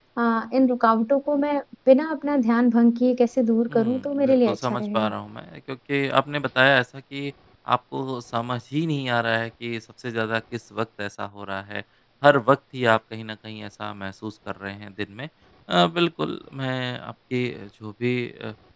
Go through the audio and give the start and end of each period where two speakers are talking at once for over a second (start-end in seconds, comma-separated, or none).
3.7-5.1